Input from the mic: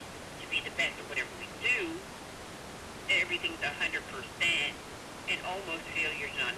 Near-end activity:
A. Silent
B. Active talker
A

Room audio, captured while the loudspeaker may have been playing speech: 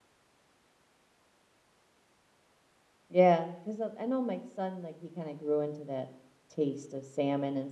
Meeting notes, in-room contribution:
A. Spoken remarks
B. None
A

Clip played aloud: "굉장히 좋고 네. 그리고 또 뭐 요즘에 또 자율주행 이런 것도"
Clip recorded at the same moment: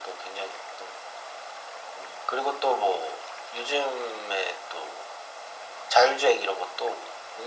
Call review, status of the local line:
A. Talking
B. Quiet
B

